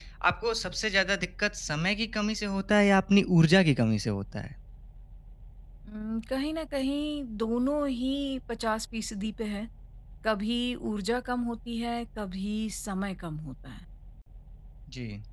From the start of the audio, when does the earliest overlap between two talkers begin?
none

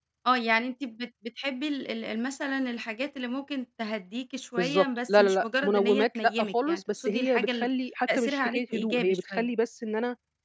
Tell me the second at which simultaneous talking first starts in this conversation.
4.6 s

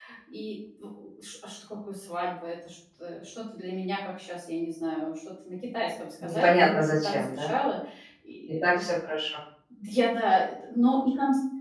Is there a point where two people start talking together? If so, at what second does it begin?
6.2 s

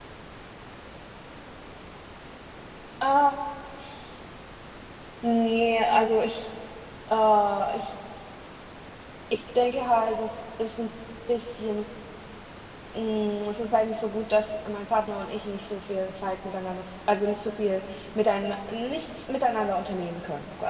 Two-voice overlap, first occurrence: none

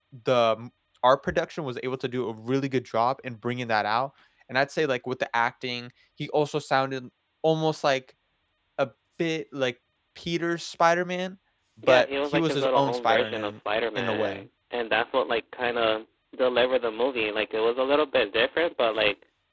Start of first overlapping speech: 11.9 s

